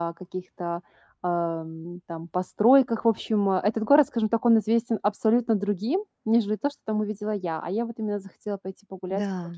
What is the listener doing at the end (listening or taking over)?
listening